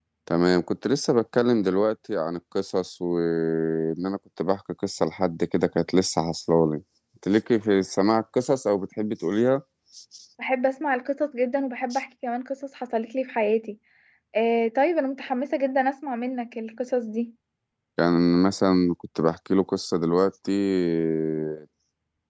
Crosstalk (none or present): none